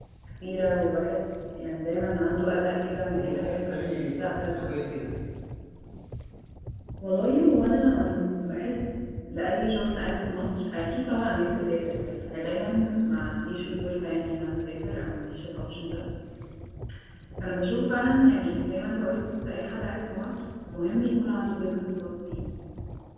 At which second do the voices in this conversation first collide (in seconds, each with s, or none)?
3.1 s